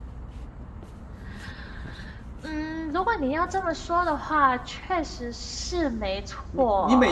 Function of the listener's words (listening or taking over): taking over